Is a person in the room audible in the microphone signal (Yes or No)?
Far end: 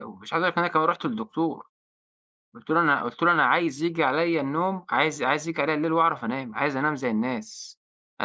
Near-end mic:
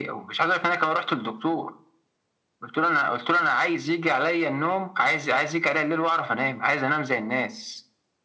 No